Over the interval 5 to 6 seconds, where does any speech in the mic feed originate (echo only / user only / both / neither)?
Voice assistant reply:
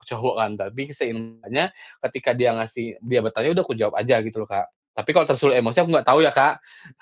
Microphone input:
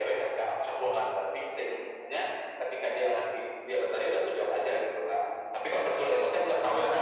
echo only